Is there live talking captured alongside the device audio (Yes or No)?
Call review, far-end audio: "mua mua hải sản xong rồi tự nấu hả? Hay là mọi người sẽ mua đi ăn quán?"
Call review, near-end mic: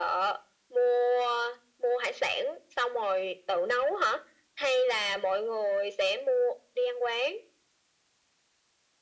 No